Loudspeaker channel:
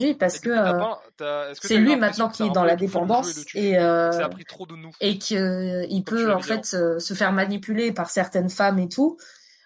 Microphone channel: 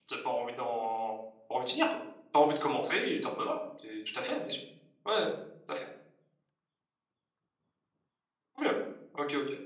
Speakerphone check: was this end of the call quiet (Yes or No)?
No